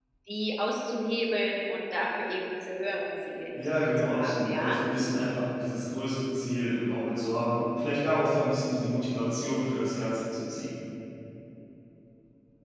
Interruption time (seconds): 3.5 s

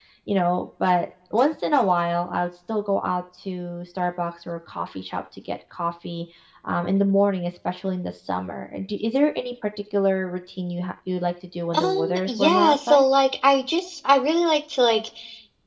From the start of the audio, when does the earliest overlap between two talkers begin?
11.7 s

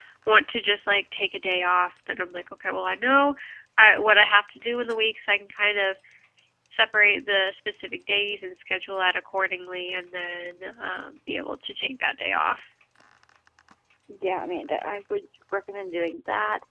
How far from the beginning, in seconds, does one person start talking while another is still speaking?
none

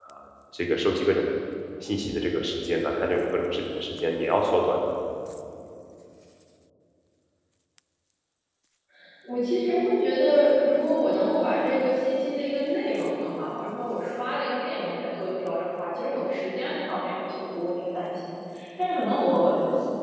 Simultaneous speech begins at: none

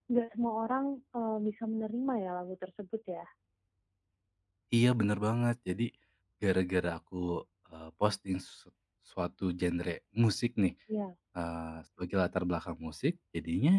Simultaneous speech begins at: none

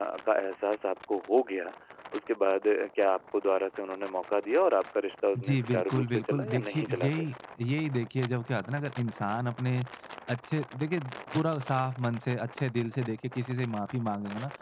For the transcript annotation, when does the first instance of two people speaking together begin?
5.3 s

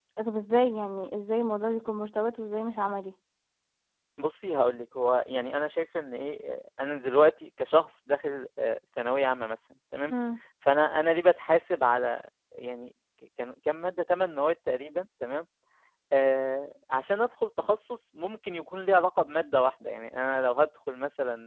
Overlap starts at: none

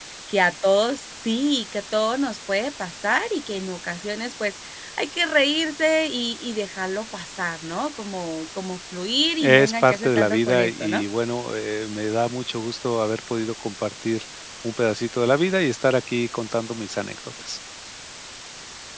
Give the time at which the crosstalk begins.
9.4 s

